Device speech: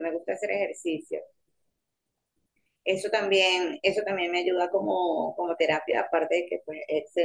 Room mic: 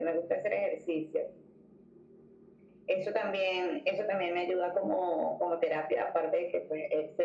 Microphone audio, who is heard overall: echo only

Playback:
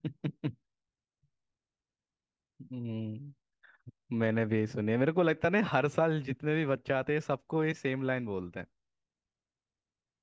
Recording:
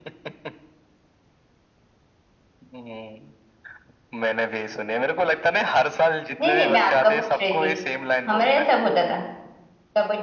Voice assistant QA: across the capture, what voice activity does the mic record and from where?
both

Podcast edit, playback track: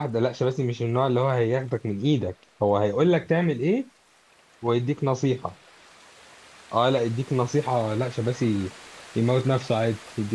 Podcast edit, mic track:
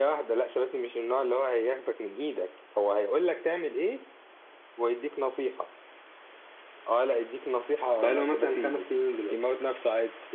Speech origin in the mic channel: both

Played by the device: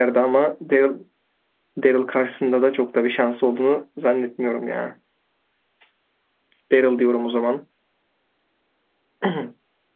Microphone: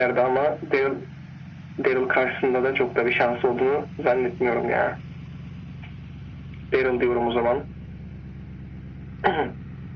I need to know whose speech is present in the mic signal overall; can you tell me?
echo only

